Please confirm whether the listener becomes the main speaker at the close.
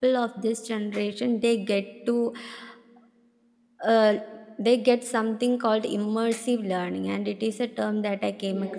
Yes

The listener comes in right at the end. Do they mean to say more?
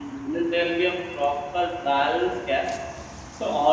No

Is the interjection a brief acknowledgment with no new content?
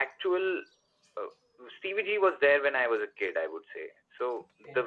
Yes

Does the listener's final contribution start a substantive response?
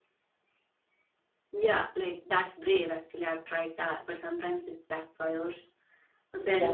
No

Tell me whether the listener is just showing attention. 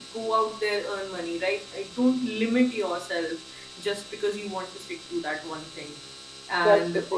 No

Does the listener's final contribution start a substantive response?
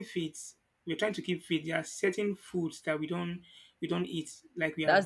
Yes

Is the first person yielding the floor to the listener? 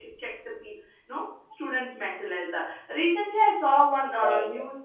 No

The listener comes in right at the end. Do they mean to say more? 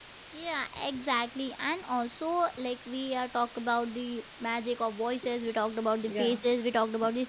No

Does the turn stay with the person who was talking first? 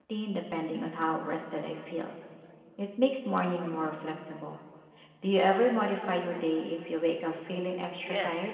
No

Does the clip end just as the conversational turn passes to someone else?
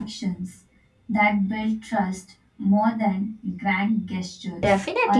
Yes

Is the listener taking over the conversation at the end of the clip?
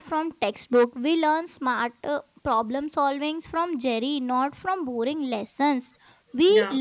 No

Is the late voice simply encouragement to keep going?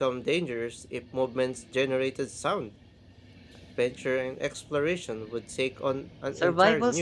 No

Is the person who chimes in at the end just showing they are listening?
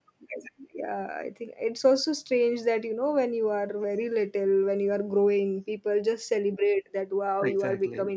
Yes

